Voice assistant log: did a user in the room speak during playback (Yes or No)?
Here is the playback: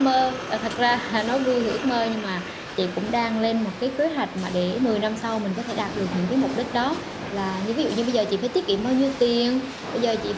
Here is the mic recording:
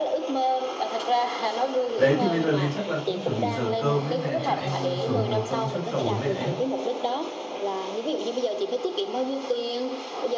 Yes